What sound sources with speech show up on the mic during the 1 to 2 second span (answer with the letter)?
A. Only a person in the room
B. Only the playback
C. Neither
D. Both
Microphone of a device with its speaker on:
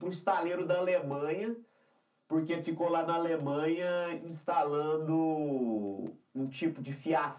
B